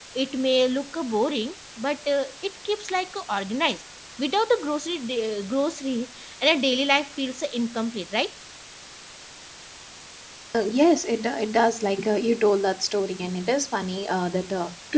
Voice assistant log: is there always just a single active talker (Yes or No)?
Yes